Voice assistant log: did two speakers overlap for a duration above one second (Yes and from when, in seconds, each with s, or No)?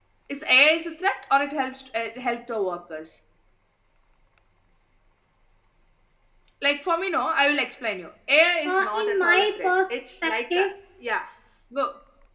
Yes, from 8.6 s